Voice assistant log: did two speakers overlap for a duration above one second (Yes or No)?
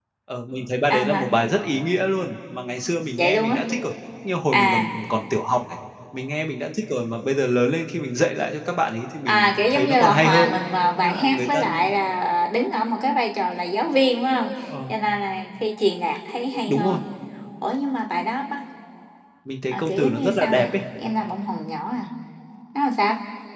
Yes